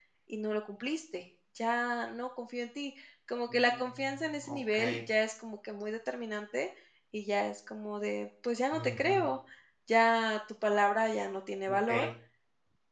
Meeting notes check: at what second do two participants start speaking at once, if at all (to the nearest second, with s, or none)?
4 s